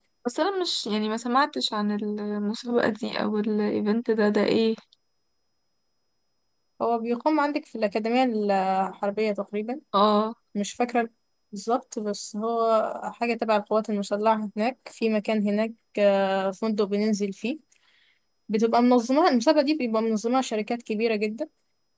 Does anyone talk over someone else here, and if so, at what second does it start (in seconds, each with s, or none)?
none